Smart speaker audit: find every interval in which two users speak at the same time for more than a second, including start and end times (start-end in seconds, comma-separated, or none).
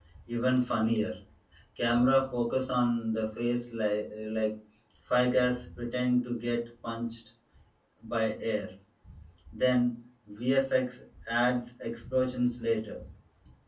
none